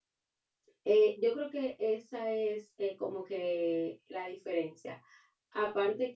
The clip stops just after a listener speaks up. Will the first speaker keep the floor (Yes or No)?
Yes